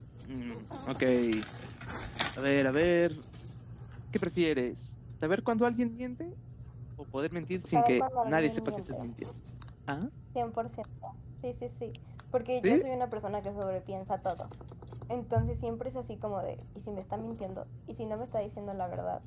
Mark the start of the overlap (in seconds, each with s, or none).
7.7 s